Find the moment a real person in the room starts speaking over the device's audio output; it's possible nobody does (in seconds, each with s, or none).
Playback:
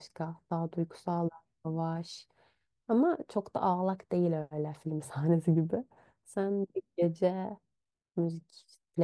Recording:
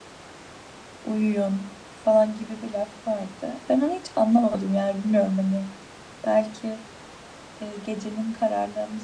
1.0 s